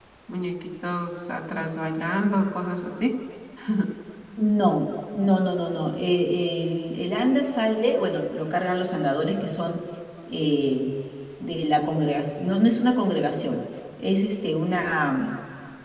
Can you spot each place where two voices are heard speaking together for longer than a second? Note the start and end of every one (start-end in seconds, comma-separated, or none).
none